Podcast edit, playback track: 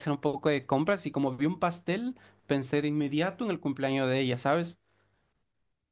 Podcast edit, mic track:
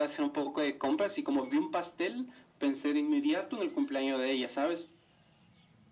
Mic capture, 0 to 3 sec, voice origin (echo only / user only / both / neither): echo only